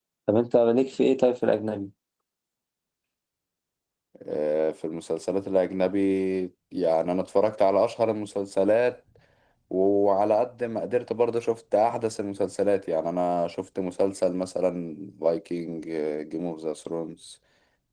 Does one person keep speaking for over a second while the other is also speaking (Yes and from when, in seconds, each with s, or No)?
No